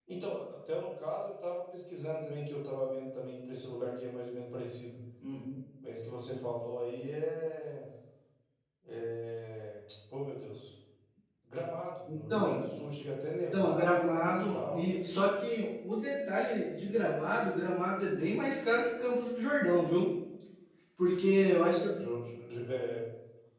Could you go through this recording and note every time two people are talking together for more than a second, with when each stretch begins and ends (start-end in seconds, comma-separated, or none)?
13.5-14.8